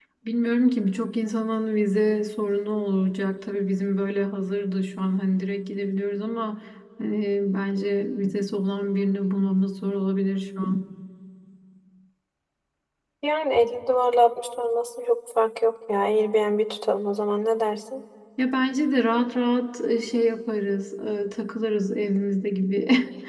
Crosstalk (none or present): none